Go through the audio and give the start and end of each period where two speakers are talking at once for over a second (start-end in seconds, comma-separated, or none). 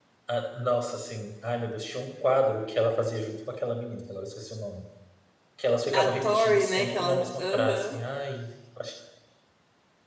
5.9-8.0